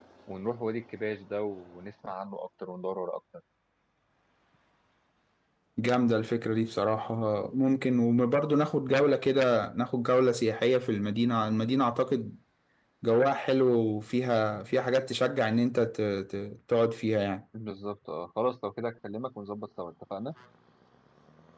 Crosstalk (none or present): none